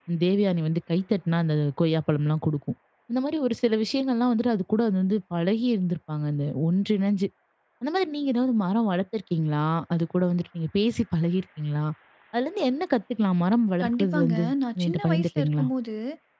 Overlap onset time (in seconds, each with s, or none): 13.8 s